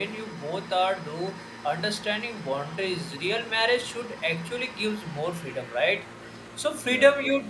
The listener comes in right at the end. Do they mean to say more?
No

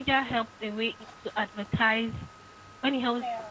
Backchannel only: Yes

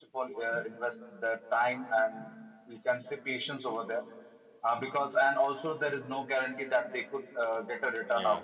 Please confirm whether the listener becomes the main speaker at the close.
Yes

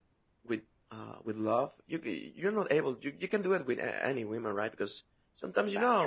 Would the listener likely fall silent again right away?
Yes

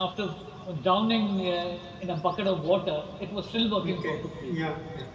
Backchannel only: No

